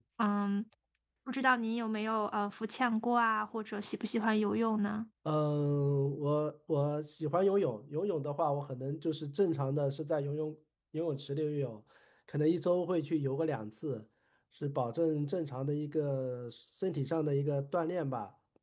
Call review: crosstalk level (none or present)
none